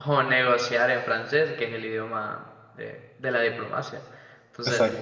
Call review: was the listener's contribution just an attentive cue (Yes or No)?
Yes